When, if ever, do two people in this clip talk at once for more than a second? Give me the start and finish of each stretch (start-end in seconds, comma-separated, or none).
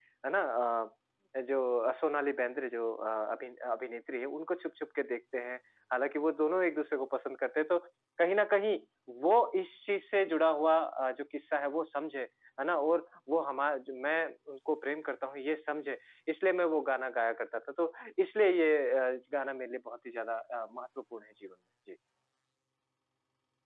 none